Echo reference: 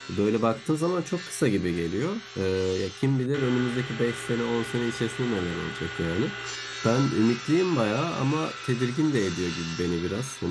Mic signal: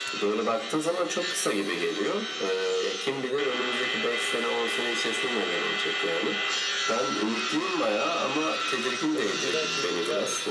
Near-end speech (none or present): present